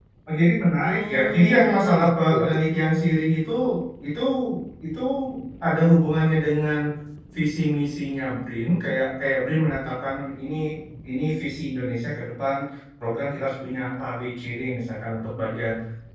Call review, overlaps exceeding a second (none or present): present